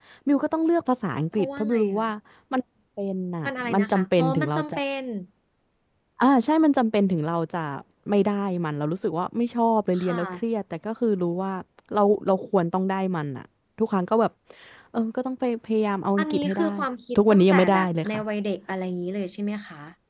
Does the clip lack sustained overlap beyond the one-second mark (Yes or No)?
No